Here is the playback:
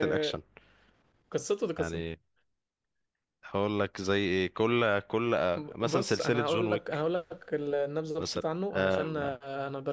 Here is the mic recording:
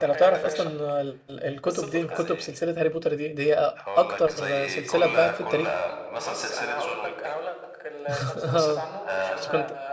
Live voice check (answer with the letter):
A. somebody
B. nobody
A